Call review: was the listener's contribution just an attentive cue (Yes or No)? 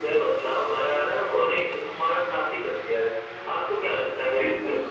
No